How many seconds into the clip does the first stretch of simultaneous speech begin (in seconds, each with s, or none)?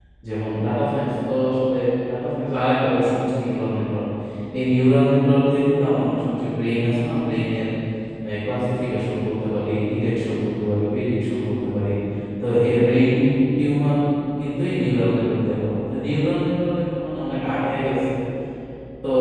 none